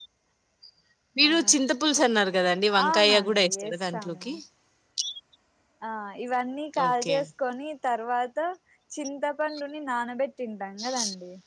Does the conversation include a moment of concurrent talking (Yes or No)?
Yes